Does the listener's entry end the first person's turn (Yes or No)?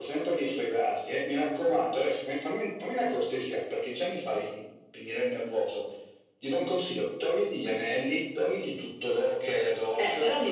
Yes